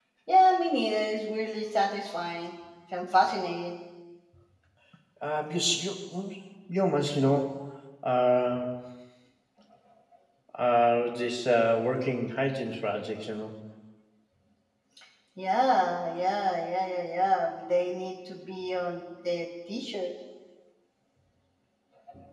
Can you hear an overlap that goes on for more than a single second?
No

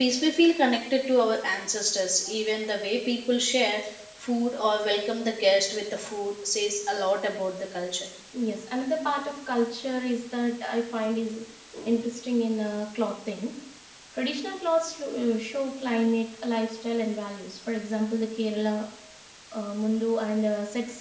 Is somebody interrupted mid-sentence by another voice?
No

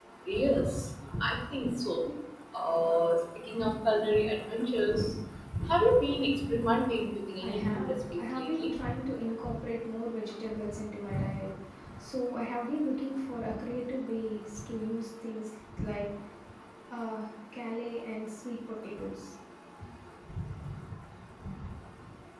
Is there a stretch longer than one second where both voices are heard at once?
Yes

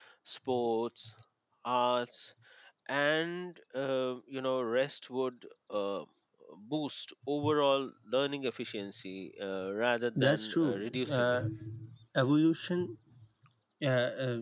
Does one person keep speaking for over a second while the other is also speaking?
Yes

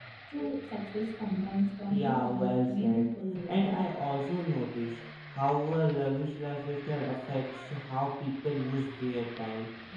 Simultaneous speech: Yes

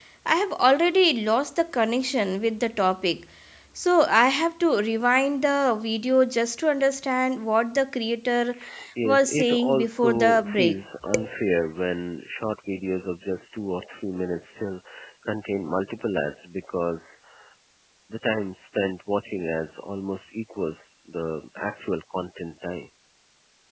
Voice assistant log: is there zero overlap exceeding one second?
No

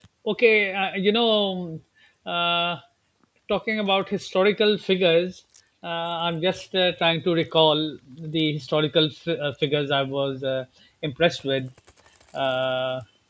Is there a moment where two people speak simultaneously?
No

